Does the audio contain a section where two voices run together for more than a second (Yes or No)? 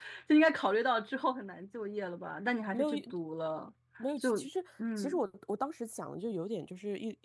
No